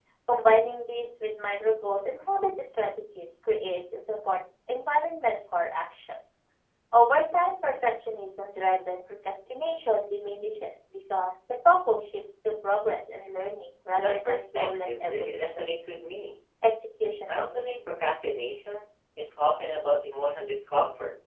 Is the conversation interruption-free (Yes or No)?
No